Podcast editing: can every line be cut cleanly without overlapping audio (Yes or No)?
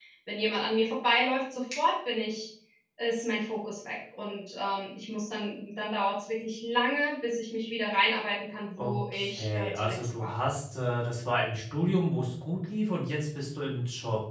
No